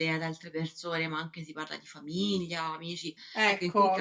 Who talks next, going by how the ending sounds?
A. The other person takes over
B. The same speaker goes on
A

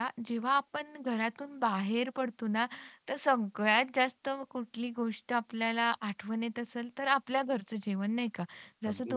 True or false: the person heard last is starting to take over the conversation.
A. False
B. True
A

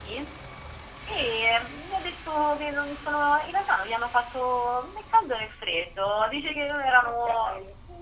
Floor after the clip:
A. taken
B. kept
B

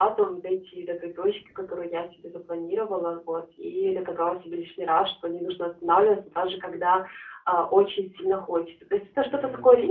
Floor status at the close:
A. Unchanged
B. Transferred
A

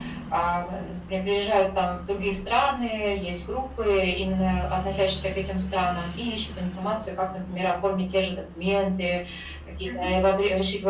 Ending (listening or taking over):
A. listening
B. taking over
A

